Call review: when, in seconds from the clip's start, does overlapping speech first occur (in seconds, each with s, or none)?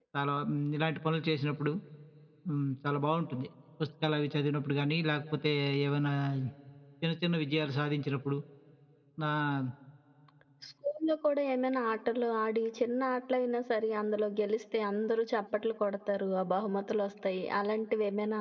none